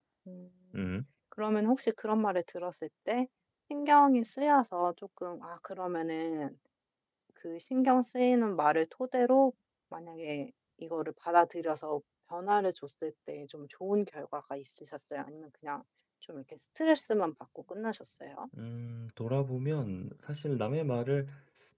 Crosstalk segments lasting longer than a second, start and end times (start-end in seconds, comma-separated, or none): none